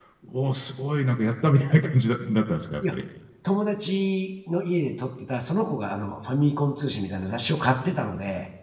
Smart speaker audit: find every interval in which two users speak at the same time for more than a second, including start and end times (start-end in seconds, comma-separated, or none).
none